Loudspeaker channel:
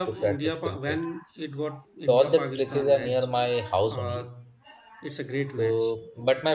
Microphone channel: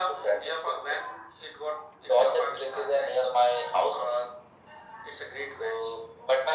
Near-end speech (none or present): none